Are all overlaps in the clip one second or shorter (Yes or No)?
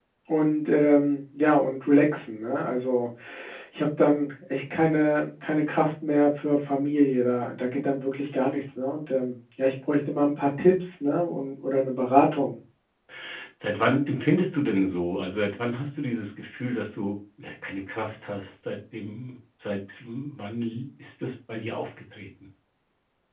Yes